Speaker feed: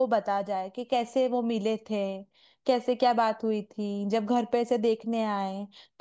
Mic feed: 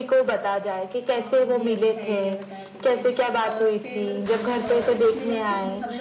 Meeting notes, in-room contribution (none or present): present